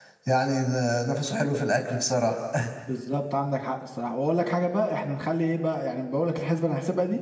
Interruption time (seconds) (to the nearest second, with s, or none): none